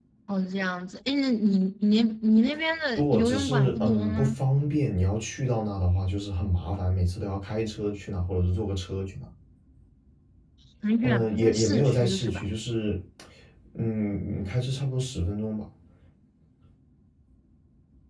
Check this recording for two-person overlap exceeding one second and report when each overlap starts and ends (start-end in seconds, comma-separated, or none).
3.0-4.3, 11.0-12.4